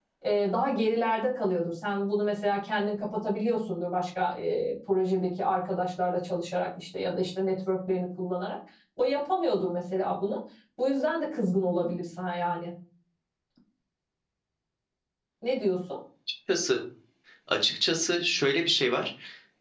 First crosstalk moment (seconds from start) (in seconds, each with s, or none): none